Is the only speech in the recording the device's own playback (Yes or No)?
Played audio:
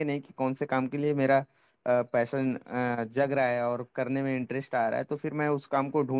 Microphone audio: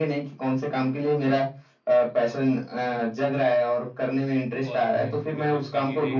No